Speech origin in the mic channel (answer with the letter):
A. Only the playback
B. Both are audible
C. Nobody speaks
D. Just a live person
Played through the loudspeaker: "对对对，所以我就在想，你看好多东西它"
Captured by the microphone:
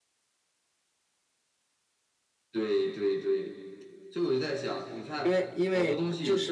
B